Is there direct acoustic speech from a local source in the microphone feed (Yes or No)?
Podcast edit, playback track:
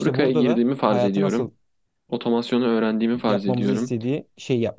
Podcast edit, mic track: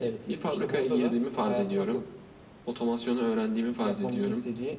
No